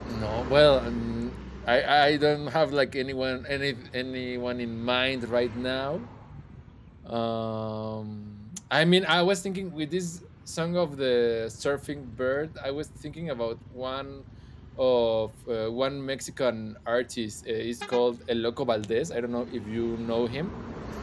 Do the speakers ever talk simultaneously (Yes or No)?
No